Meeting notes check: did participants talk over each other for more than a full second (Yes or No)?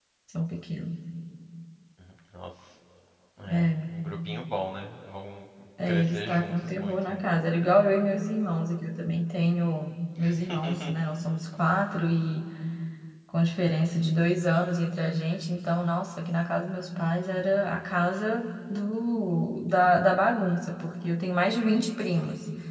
Yes